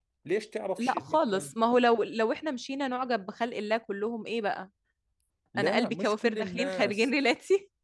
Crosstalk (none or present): present